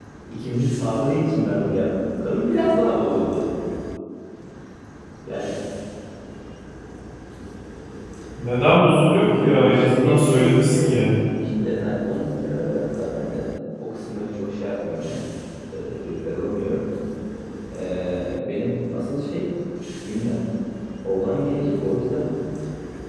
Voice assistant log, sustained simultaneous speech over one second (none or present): present